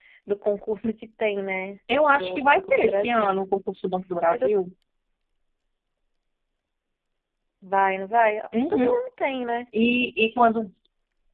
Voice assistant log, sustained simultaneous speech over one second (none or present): present